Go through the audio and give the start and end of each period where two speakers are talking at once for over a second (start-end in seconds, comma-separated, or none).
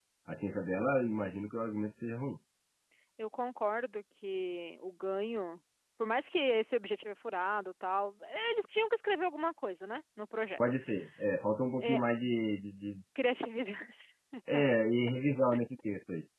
none